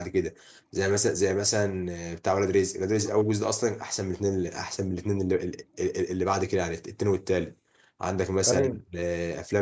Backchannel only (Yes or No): Yes